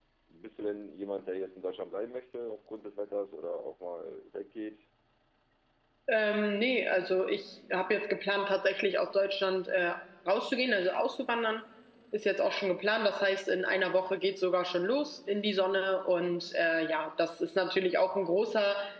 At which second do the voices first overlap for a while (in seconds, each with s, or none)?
none